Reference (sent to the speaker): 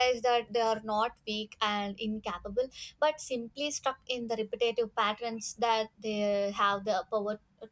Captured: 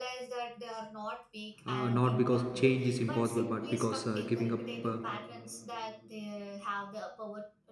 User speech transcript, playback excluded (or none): Uh, not because change is impossible, but because uh, giving up uh,